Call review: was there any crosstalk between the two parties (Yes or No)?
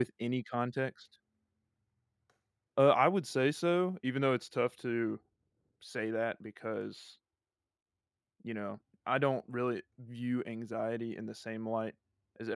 No